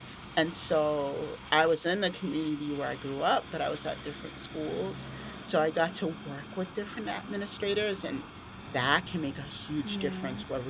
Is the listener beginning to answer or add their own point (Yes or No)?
No